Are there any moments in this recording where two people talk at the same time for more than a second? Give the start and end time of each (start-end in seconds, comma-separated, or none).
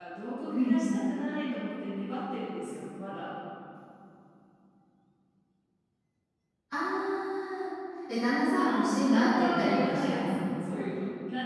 8.6-10.4